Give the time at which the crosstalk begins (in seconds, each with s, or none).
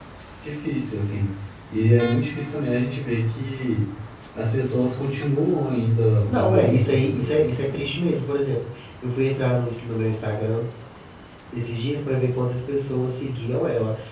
6.3 s